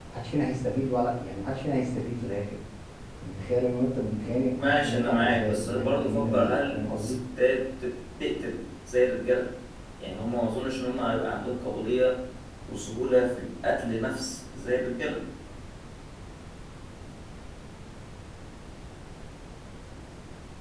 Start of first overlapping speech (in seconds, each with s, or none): 4.6 s